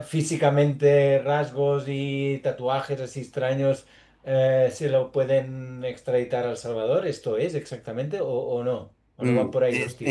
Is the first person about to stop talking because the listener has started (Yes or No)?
Yes